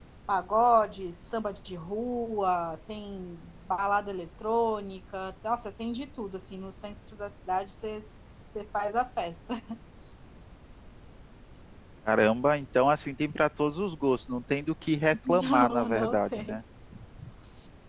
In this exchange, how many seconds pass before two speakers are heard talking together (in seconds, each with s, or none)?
15.2 s